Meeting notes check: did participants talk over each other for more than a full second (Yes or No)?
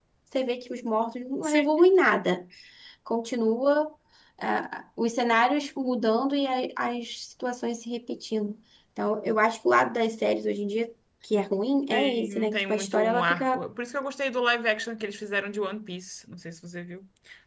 Yes